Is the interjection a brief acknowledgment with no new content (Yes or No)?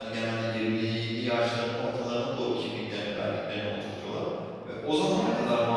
Yes